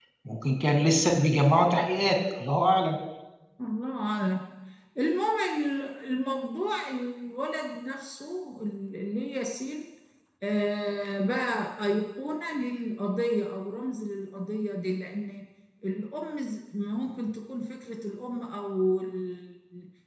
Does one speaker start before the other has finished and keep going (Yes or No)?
No